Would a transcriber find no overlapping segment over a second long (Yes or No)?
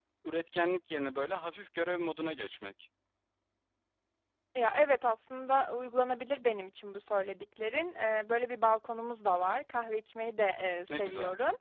Yes